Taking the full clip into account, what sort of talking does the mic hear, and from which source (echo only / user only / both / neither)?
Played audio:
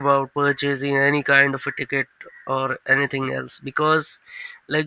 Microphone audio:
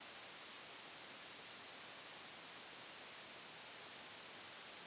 neither